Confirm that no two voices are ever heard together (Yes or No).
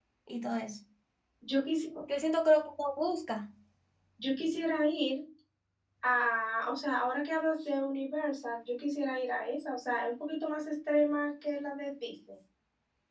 Yes